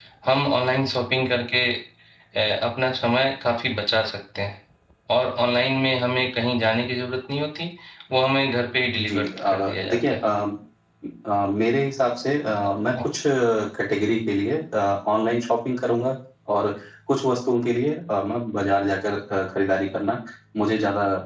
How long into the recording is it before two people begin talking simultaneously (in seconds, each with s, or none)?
9.0 s